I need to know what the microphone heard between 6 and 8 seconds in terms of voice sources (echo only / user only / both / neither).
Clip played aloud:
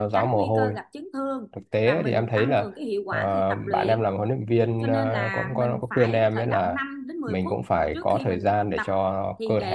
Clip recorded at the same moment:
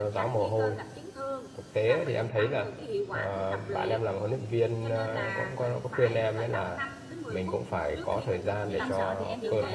echo only